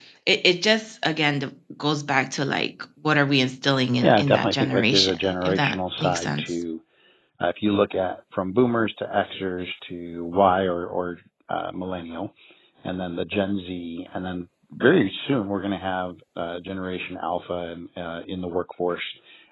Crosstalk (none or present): present